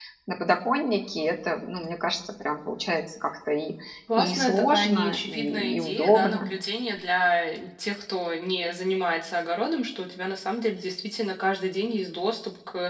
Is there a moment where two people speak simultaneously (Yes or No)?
Yes